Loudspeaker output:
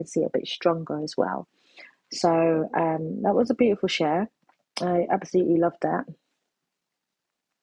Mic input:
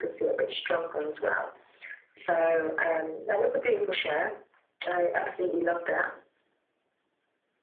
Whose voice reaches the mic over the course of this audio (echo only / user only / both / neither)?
echo only